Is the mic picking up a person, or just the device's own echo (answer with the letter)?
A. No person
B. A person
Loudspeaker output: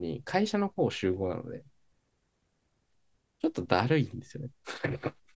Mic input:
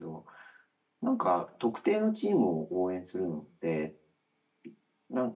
B